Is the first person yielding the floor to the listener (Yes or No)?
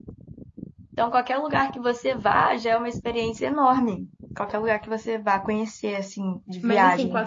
Yes